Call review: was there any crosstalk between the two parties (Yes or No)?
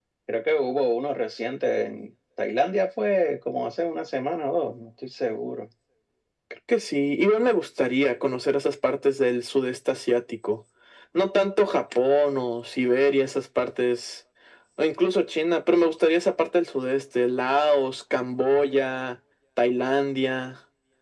No